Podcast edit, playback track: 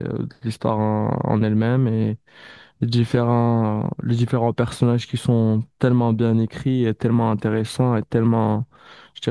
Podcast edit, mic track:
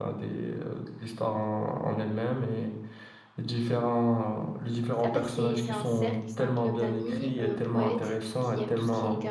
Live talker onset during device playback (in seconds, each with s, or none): 4.9 s